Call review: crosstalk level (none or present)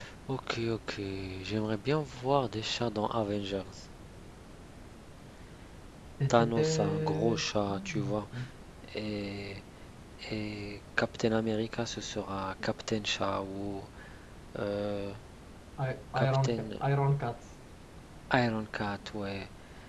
present